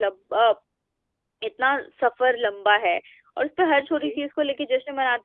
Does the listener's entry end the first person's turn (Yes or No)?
No